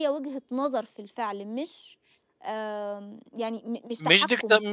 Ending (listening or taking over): taking over